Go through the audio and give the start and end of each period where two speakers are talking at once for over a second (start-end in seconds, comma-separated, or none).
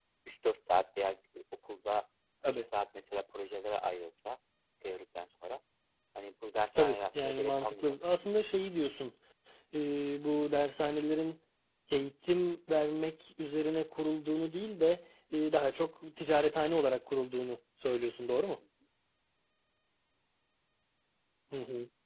6.8-8.2